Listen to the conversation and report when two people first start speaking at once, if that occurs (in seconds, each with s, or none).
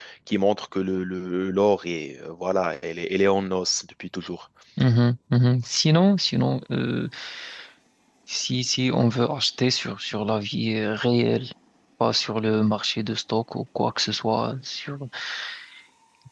none